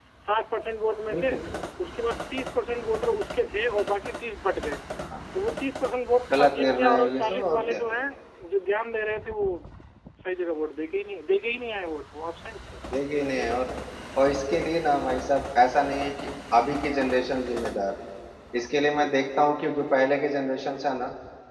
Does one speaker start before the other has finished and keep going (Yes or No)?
Yes